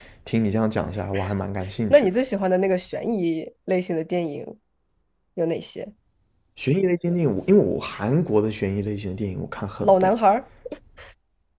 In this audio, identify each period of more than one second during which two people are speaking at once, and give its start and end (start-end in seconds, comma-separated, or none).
none